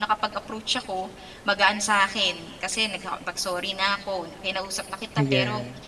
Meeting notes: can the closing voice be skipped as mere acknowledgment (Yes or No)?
Yes